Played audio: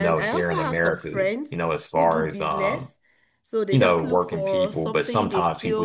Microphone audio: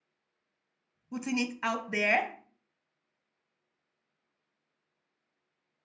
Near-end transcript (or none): putting it out there